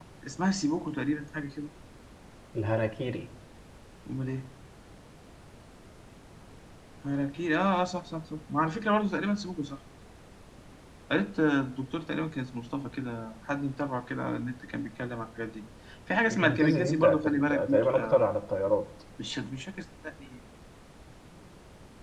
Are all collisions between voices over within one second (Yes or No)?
No